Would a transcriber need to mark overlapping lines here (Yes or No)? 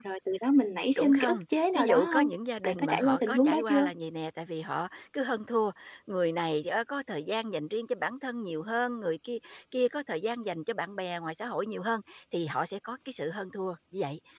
Yes